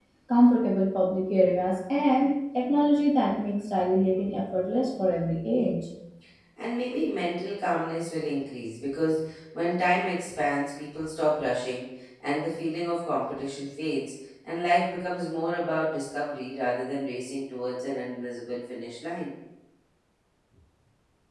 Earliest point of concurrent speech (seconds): none

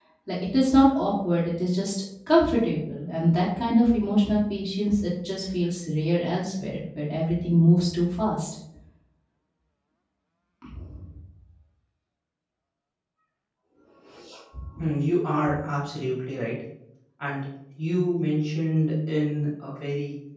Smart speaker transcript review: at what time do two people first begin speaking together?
none

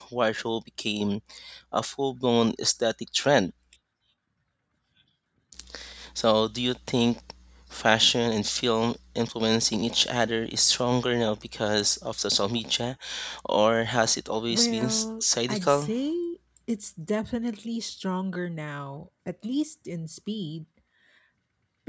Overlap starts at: 14.5 s

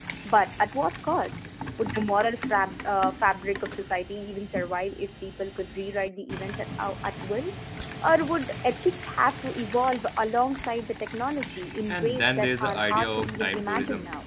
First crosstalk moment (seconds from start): 11.9 s

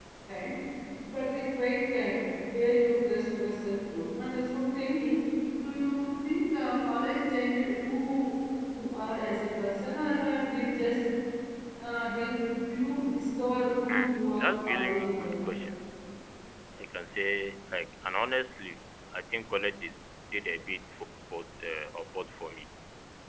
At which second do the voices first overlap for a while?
13.9 s

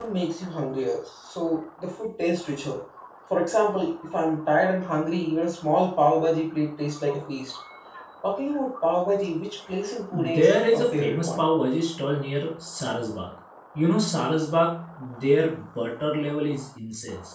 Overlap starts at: 10.1 s

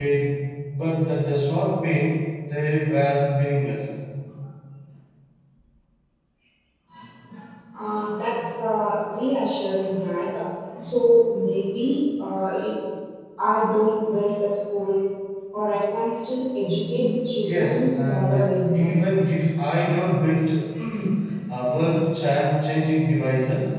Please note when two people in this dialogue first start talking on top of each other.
17.4 s

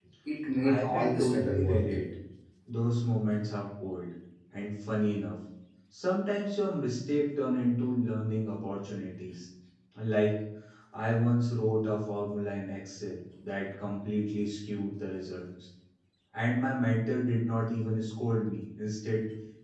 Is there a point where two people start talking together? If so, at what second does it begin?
0.6 s

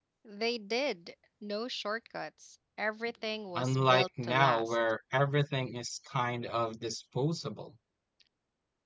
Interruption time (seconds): 3.6 s

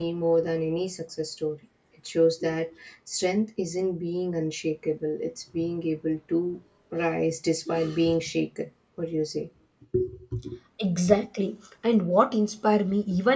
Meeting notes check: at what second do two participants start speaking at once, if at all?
none

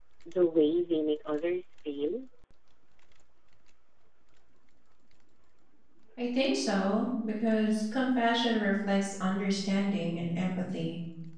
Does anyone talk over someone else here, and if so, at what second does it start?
none

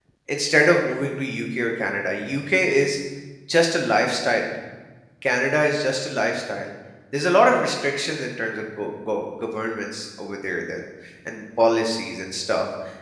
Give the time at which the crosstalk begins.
none

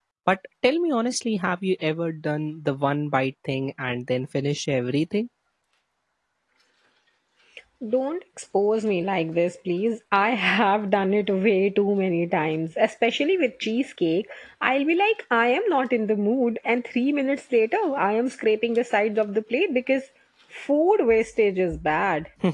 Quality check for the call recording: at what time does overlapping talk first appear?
none

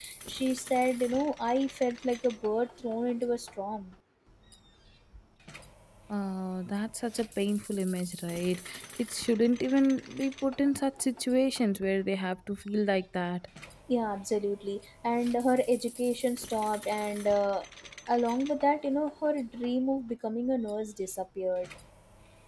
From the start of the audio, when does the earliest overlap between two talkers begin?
none

